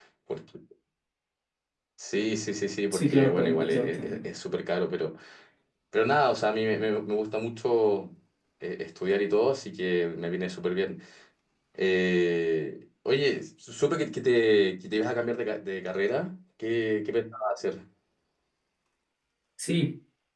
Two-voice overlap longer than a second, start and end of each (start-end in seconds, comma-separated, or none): 2.9-4.2